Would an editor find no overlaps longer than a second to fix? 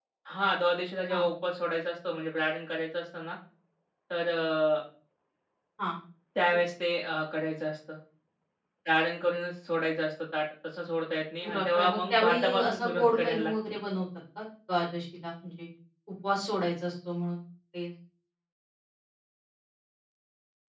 No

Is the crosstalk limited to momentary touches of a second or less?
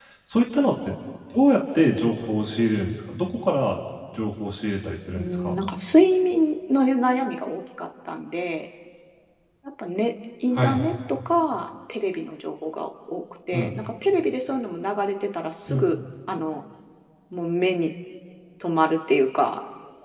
Yes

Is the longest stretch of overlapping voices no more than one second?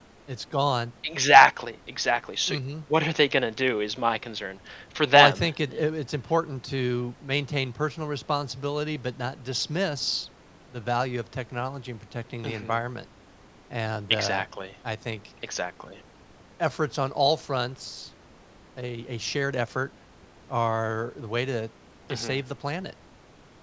Yes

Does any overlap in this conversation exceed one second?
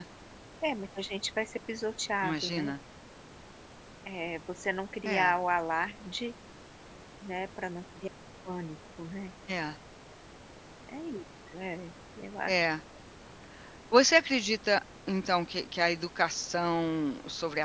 No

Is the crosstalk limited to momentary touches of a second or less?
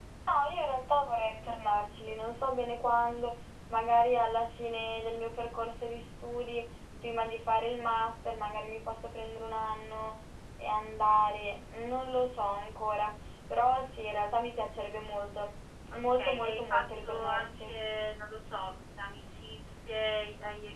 No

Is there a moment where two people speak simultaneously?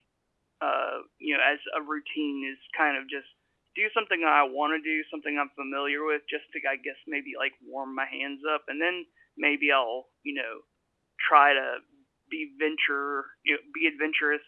No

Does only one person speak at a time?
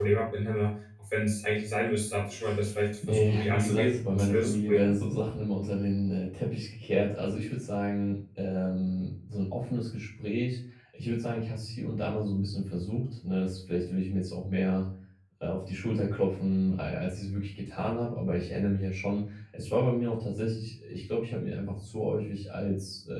No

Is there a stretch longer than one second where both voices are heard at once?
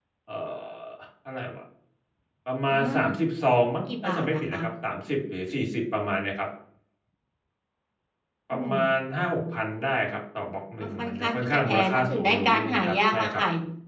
Yes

